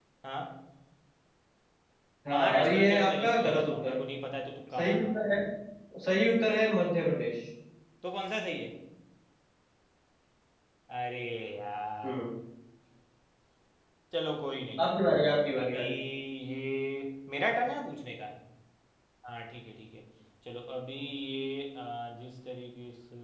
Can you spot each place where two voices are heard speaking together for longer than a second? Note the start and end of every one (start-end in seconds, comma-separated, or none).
2.3-4.0